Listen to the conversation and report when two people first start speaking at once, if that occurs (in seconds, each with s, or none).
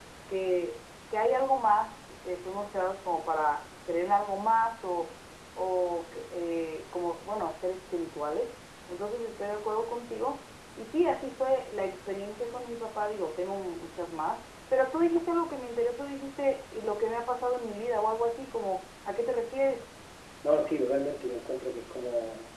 none